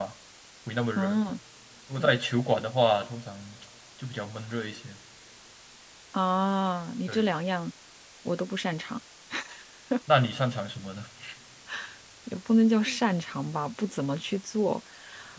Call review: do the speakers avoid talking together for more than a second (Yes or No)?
Yes